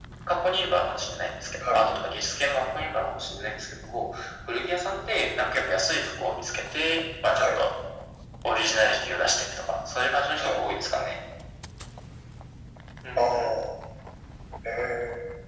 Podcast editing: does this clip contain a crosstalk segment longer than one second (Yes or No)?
No